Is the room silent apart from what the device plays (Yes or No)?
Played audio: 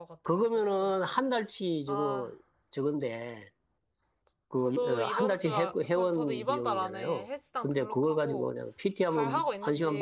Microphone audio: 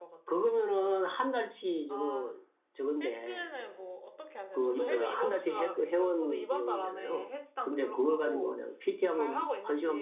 No